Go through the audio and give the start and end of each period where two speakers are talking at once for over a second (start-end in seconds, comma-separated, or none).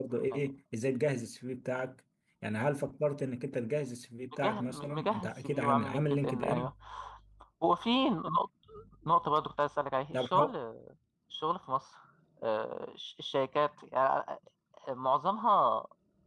4.4-6.7